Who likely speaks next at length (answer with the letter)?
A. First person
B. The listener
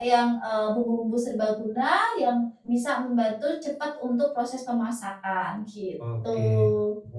B